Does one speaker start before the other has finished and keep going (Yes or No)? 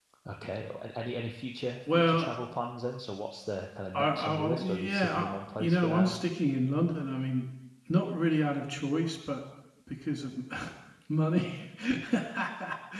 Yes